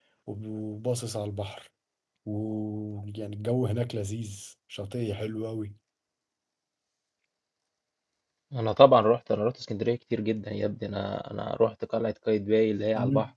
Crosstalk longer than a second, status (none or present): none